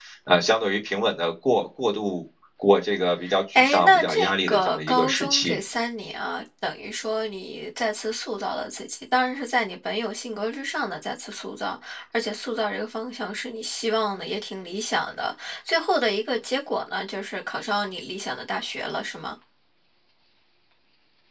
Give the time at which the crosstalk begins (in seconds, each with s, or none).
3.5 s